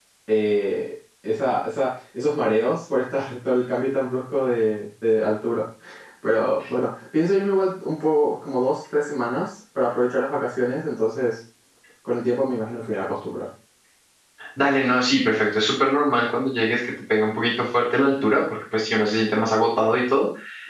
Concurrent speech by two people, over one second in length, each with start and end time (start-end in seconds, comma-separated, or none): none